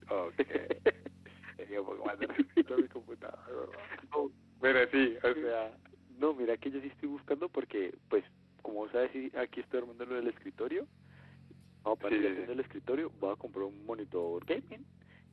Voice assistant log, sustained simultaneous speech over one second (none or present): none